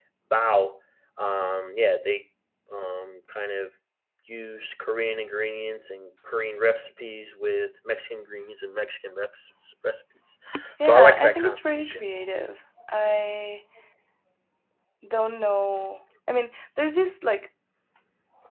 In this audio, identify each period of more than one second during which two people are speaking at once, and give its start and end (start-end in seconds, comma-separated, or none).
10.8-12.0